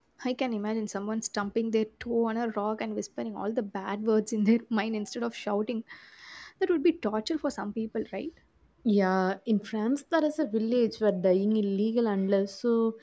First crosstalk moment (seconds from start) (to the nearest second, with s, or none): none